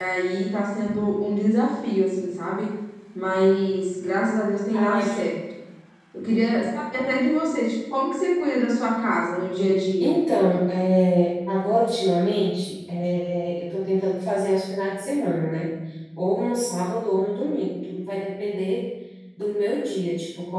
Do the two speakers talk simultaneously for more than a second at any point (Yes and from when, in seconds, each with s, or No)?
No